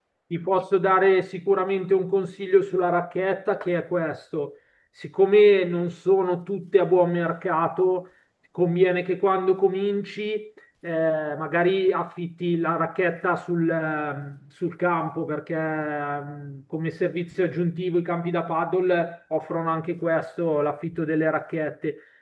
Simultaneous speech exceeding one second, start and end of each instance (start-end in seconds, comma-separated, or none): none